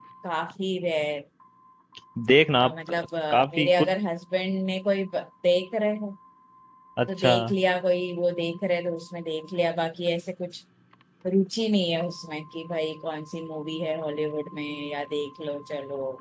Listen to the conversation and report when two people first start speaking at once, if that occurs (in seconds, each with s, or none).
2.6 s